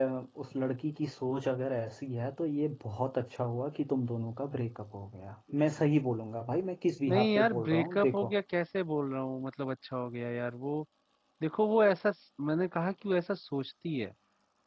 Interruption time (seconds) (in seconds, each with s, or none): 7.1 s